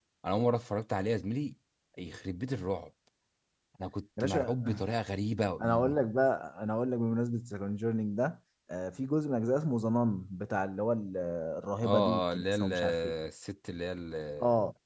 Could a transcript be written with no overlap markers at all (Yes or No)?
No